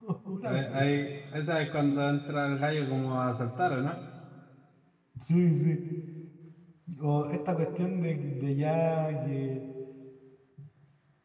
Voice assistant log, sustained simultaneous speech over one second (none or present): none